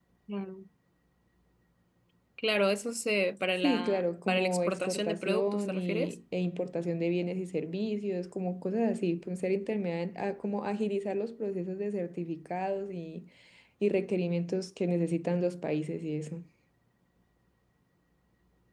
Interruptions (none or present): present